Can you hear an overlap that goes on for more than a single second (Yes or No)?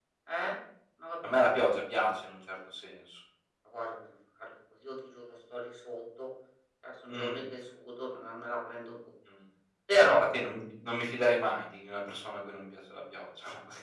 No